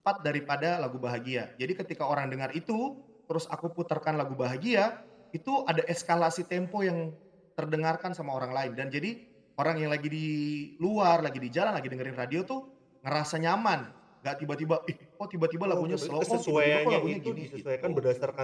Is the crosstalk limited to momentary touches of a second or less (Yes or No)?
No